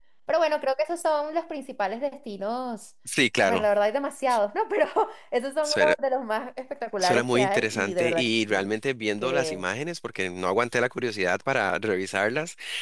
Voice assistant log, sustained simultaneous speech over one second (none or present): present